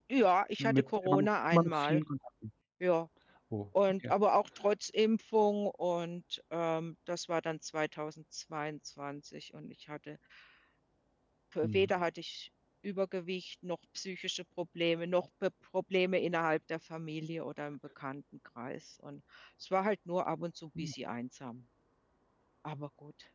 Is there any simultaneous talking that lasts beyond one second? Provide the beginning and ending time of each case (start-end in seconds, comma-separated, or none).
0.6-2.0